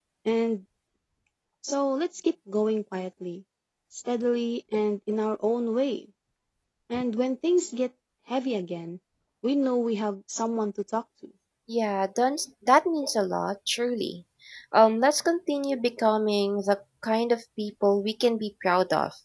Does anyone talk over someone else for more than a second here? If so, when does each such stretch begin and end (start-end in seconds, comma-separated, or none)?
none